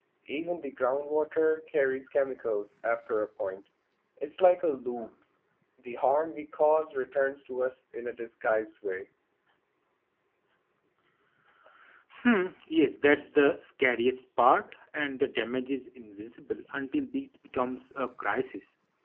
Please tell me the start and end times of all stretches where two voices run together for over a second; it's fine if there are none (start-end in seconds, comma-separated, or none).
none